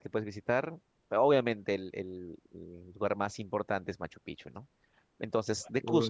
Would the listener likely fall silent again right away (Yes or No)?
Yes